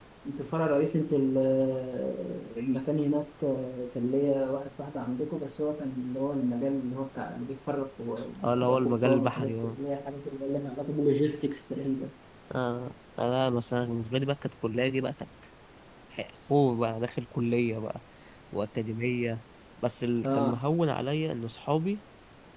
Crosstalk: present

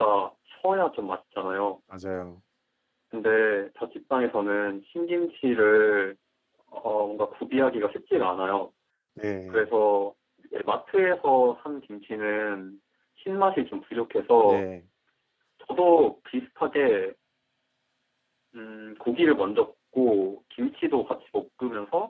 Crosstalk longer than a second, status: none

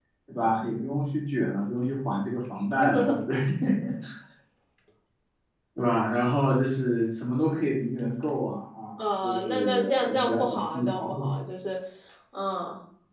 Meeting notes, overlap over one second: present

